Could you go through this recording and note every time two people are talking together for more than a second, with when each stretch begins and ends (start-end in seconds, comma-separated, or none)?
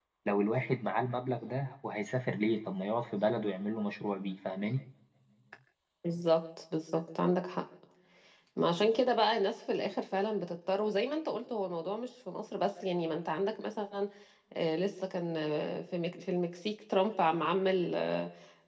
none